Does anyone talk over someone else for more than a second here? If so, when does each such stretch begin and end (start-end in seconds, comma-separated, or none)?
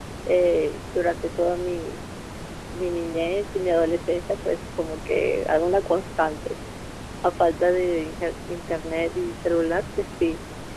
none